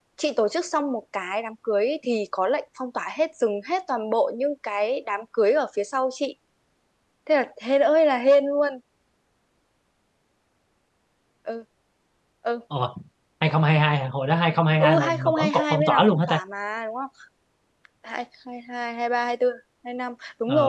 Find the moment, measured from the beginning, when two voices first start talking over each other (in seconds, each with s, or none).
14.8 s